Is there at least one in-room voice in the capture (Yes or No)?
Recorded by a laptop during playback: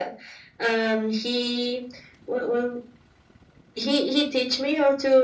No